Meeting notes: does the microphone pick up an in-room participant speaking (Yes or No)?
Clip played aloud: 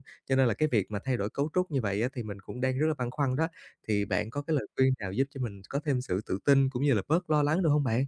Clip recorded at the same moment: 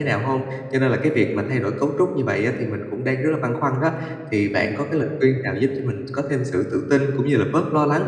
No